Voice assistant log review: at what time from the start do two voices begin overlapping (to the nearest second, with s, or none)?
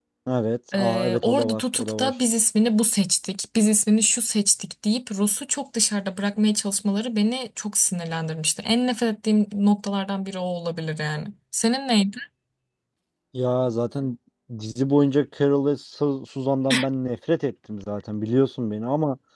1 s